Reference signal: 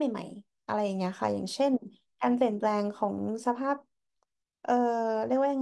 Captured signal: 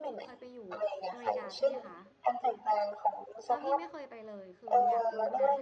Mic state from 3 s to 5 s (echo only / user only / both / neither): both